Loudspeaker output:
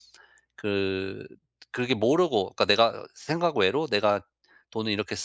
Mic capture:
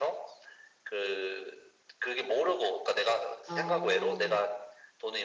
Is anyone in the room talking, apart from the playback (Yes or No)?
Yes